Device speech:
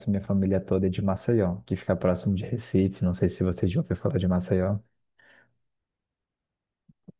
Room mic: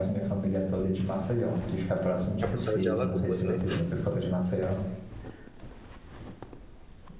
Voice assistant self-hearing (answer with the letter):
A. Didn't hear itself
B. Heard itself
B